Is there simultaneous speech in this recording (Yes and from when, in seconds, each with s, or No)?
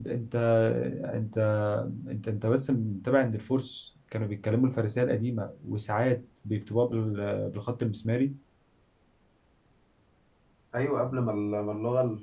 No